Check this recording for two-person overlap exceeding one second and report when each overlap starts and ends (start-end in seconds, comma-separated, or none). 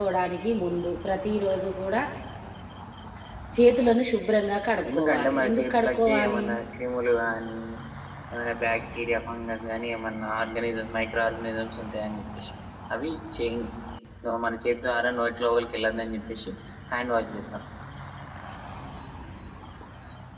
4.9-6.4